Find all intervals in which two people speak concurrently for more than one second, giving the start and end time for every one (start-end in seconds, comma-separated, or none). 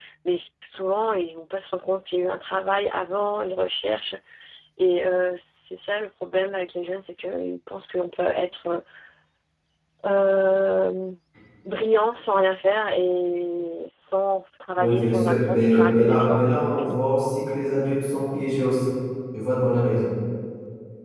14.8-16.4